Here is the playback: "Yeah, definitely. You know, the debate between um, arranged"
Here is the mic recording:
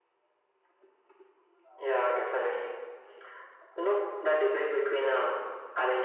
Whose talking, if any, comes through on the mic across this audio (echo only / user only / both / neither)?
echo only